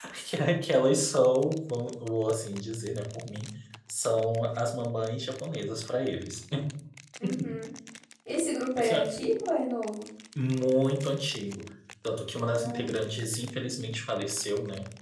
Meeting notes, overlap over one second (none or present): none